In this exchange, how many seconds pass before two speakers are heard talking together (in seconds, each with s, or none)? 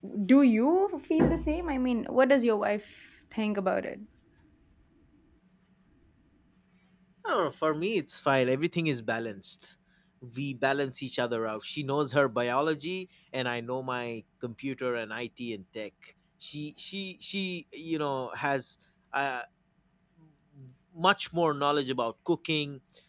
none